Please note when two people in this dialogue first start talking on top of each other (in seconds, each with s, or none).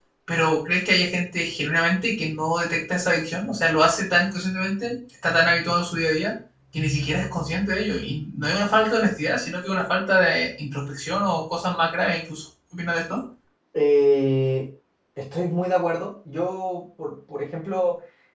none